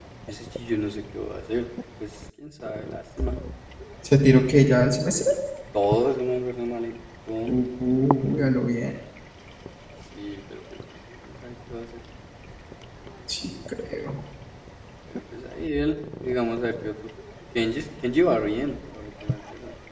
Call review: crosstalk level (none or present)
none